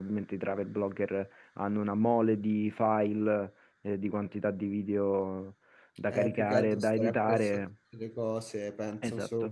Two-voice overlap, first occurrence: 6.1 s

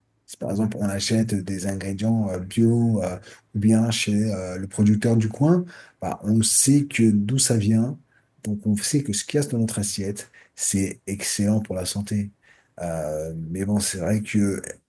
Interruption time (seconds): none

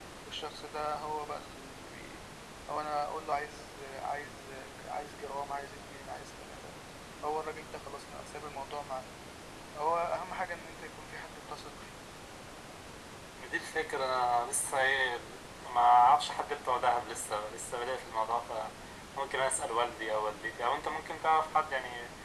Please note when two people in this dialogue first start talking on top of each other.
none

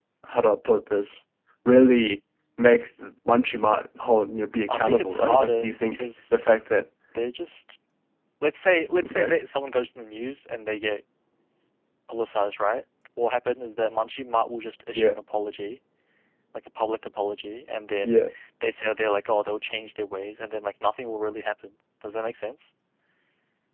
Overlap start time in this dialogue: 4.7 s

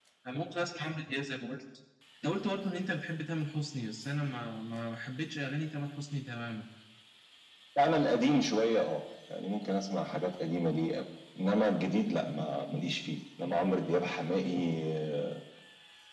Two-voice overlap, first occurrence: none

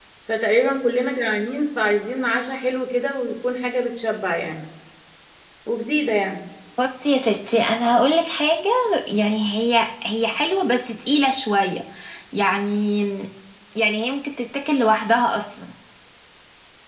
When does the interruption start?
none

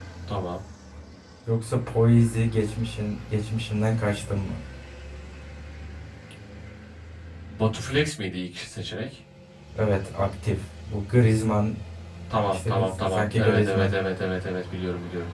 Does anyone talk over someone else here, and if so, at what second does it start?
12.5 s

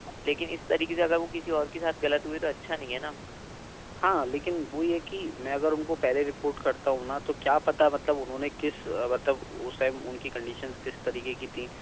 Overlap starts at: none

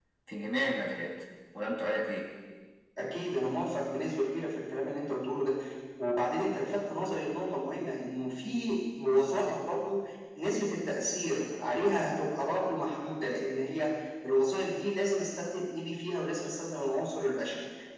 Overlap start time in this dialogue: none

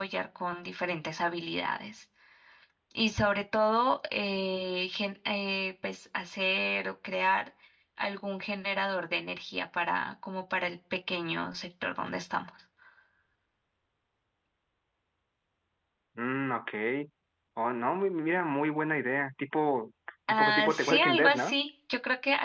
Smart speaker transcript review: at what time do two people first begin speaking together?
20.3 s

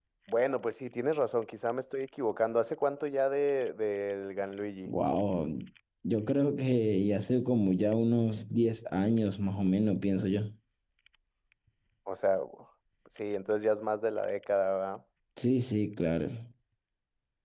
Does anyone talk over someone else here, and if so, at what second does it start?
none

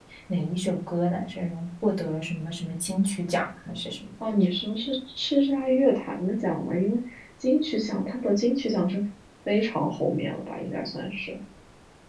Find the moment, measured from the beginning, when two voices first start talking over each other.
none

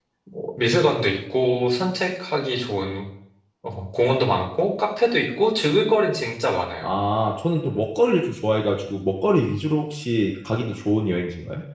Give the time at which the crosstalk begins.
none

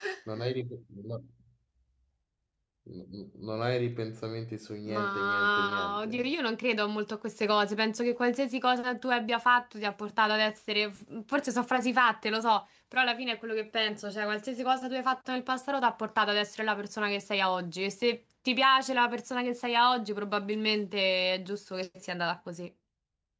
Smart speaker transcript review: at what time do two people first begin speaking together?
4.9 s

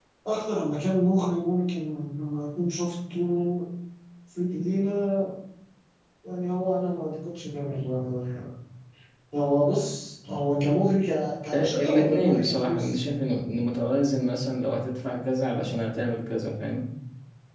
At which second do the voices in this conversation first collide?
11.5 s

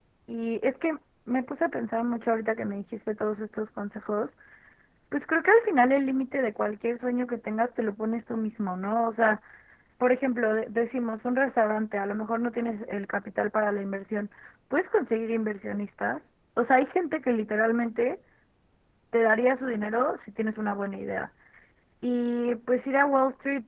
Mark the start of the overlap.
none

